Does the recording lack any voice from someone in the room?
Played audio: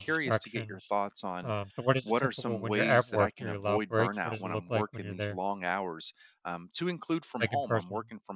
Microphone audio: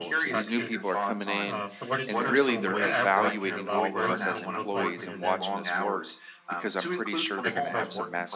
No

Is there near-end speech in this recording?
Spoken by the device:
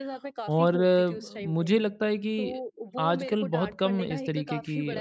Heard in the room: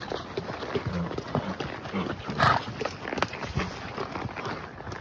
No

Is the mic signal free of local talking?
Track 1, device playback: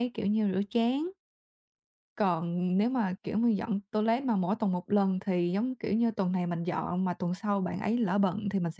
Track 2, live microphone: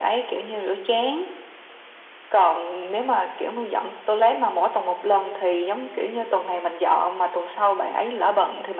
Yes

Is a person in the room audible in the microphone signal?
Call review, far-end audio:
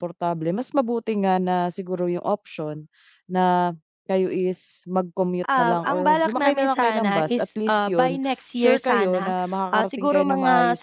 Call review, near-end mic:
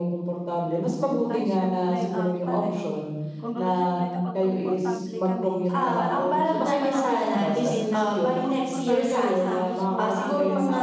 Yes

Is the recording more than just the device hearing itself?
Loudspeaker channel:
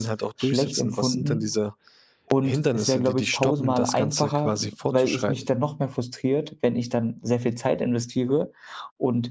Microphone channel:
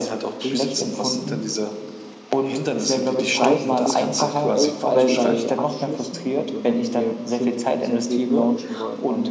Yes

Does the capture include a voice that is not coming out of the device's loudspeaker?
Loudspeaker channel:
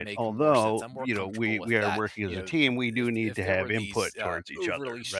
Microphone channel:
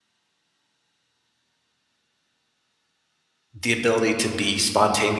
Yes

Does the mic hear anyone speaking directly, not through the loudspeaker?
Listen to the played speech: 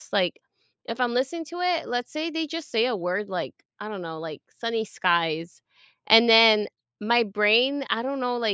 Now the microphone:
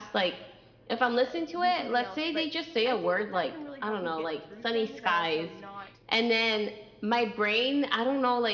Yes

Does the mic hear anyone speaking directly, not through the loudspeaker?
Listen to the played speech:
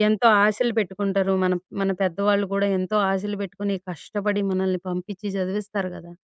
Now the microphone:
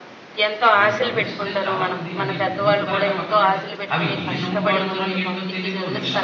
Yes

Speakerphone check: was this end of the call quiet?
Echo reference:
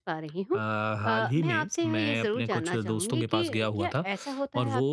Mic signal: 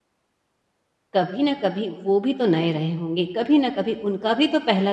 No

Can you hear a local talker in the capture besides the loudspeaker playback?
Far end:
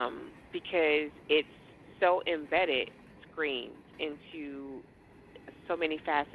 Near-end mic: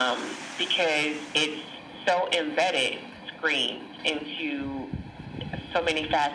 No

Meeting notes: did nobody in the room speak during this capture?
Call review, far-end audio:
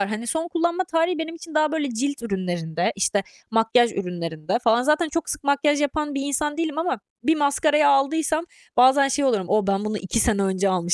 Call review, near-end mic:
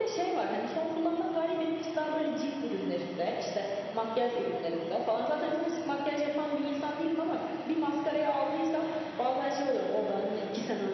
Yes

